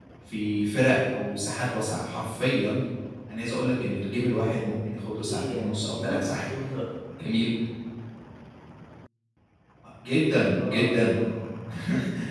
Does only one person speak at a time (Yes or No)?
No